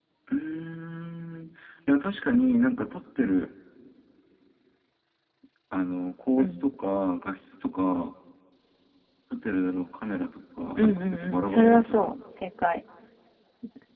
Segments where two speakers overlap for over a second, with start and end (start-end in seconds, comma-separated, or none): 10.8-12.1